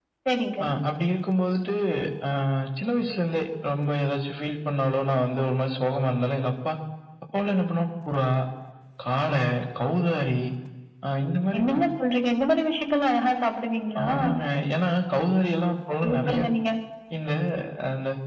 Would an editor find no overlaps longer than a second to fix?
Yes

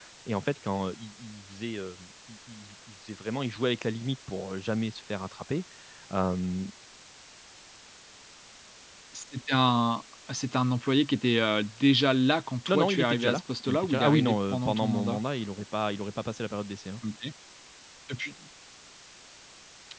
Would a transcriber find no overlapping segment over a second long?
No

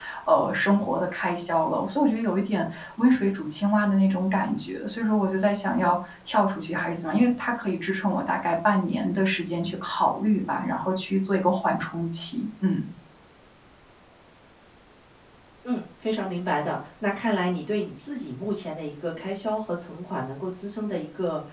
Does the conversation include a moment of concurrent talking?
No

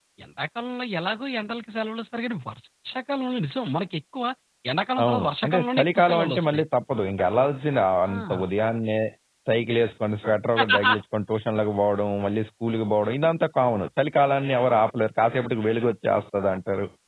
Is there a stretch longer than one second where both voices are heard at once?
Yes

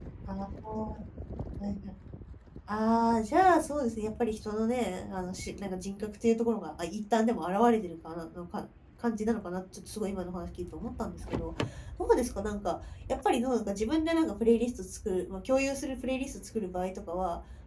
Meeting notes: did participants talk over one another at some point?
No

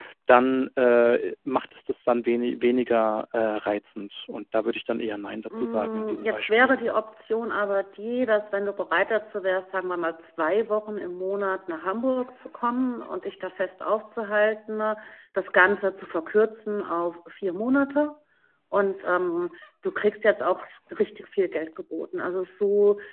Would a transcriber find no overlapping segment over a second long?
No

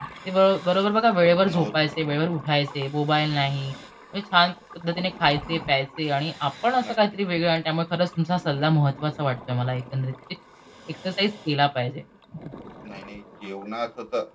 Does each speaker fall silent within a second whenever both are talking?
Yes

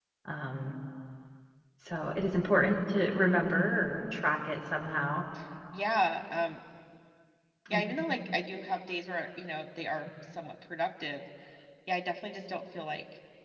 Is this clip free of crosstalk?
Yes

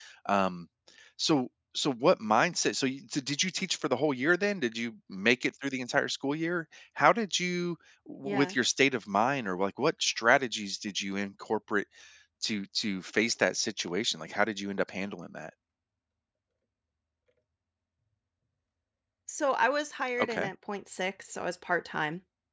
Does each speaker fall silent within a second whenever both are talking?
Yes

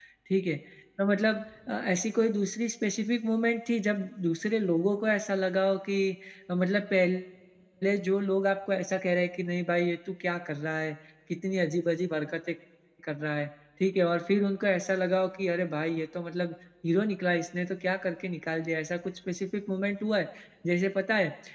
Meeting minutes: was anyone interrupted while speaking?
No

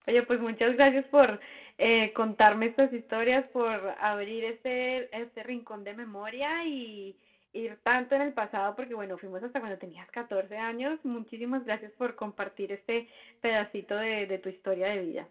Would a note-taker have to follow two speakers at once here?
No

